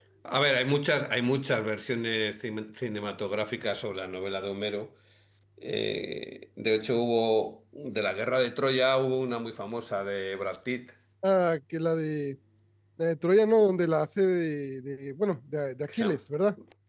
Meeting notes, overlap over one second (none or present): none